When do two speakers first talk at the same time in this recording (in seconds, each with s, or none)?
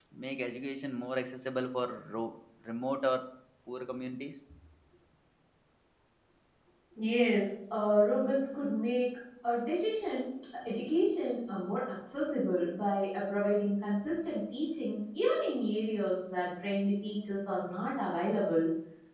none